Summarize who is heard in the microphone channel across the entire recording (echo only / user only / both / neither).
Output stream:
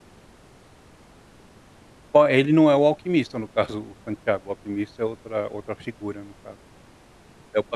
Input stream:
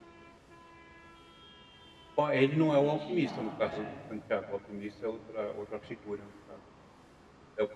both